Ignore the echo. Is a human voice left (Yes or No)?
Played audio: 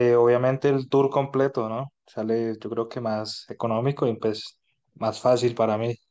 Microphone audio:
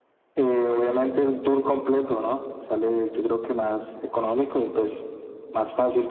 No